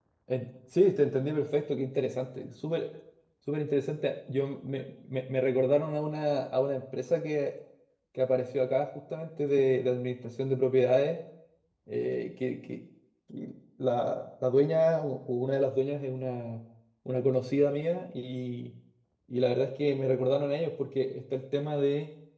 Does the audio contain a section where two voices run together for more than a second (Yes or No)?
No